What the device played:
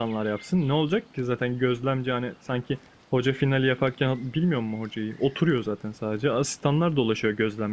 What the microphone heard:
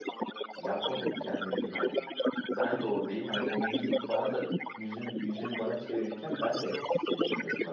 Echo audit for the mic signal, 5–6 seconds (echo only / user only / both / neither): both